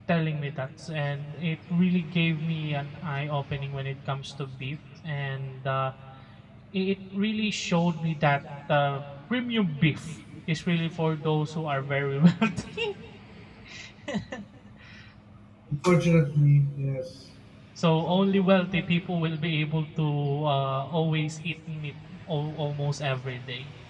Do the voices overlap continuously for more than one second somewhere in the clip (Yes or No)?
No